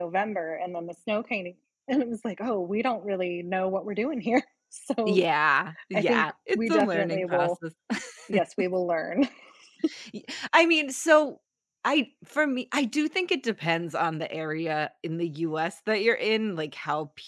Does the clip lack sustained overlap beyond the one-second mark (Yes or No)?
No